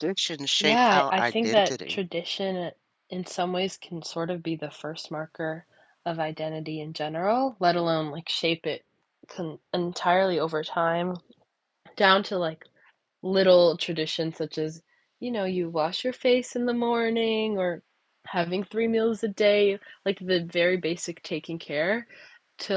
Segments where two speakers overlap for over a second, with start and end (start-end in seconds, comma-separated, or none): 0.6-2.0